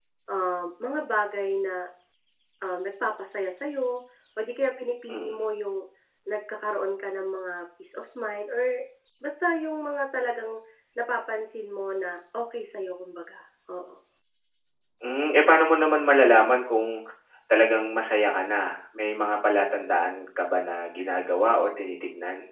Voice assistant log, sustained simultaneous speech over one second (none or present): none